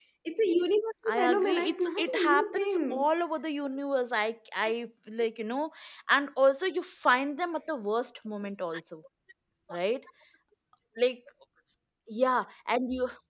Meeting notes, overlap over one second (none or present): present